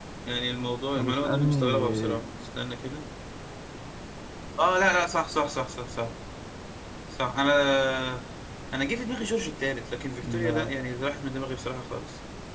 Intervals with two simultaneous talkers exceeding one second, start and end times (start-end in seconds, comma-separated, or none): 1.0-2.2